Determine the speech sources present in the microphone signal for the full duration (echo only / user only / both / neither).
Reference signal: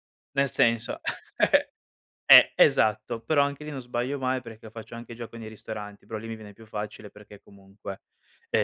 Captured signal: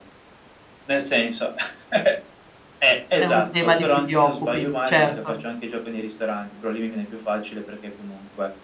both